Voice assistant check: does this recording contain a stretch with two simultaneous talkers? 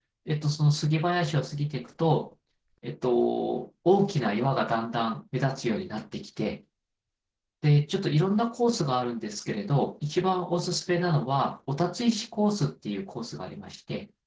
No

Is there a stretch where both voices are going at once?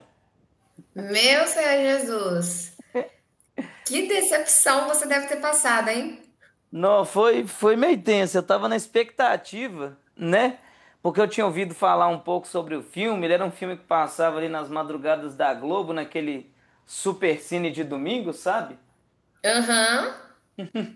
No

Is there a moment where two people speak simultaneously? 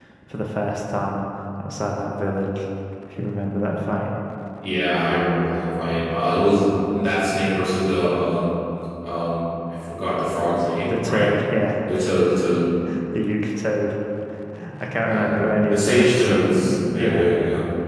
Yes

